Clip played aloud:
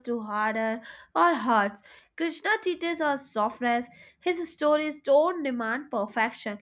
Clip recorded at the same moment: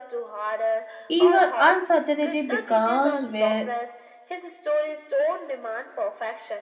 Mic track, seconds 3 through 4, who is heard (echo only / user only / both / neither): both